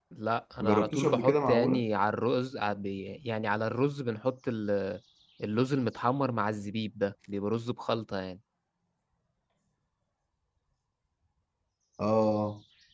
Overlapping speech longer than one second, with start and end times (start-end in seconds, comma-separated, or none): 0.6-1.8